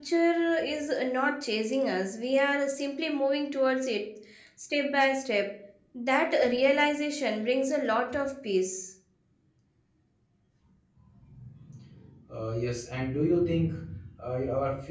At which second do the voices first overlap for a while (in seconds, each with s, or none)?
none